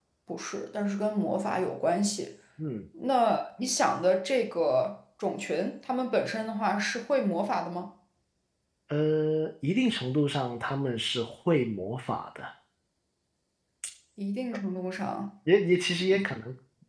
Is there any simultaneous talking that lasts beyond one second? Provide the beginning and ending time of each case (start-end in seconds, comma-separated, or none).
none